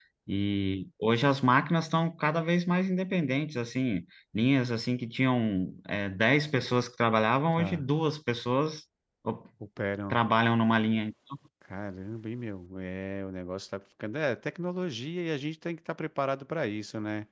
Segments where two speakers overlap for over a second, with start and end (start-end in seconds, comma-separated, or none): none